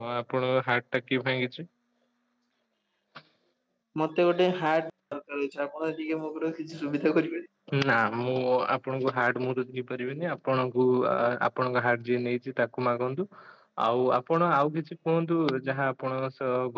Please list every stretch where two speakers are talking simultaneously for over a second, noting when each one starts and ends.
none

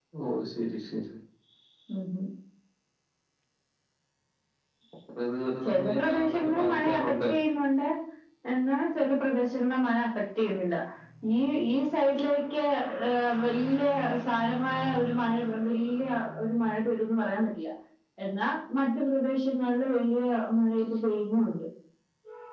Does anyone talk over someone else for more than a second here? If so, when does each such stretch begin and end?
5.6-7.2

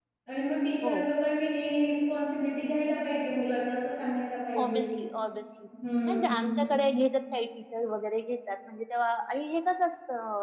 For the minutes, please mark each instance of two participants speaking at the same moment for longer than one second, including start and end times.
none

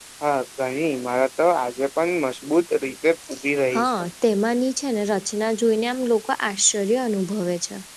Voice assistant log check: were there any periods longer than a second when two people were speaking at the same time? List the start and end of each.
none

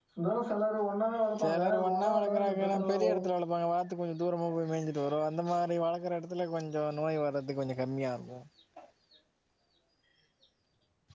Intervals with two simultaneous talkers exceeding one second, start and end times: 1.4-3.2

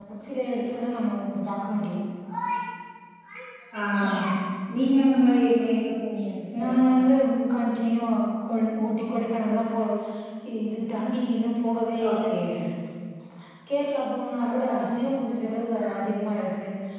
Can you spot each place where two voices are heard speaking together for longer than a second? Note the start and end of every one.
none

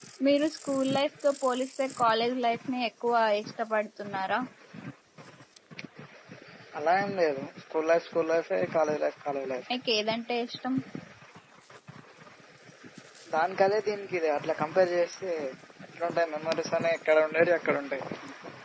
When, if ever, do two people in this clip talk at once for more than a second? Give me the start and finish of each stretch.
none

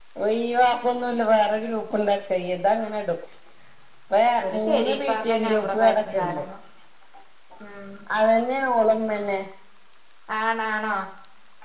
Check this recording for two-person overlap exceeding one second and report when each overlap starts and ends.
4.6-6.4

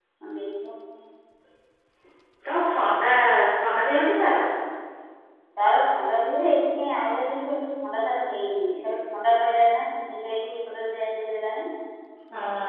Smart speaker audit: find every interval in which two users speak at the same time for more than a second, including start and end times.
none

